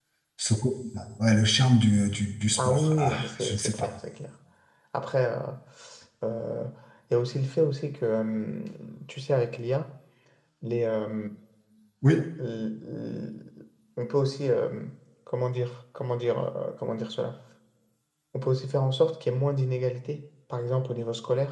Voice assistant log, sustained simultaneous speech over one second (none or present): present